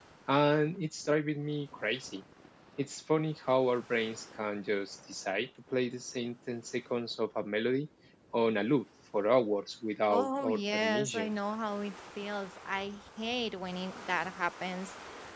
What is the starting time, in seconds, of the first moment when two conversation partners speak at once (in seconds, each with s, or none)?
10.1 s